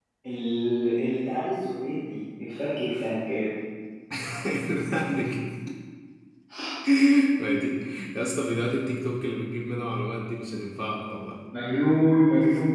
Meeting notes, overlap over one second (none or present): none